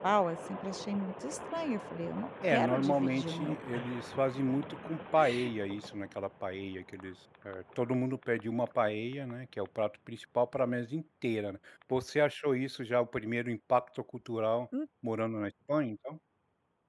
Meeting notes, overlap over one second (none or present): present